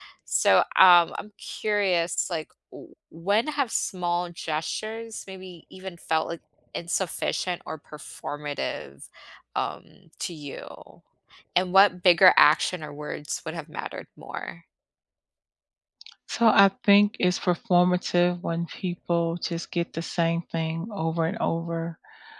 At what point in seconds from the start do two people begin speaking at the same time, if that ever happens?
none

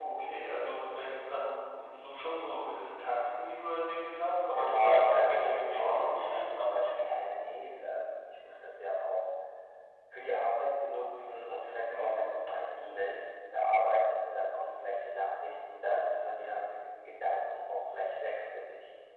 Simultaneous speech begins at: 4.5 s

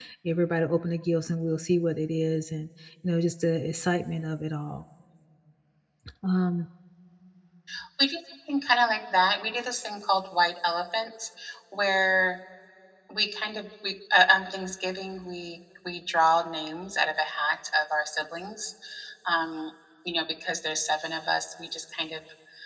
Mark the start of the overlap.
none

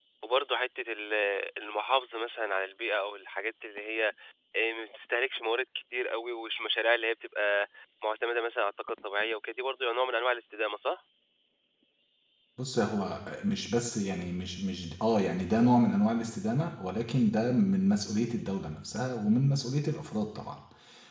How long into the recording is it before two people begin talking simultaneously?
none

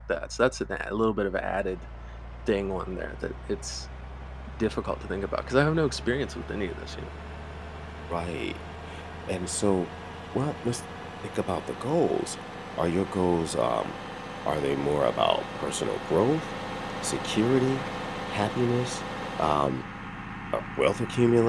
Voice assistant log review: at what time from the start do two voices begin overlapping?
none

